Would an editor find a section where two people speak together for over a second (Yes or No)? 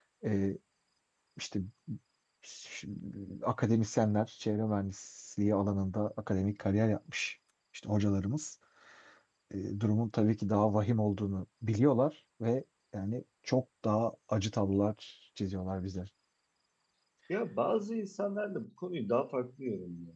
No